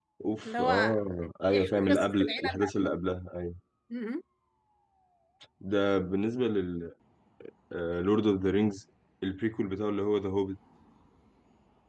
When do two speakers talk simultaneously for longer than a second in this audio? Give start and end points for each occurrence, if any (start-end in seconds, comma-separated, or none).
1.5-2.9